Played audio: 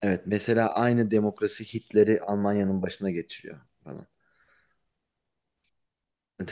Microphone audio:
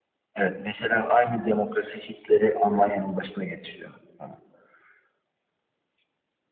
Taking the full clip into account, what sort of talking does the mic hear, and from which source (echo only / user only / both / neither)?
echo only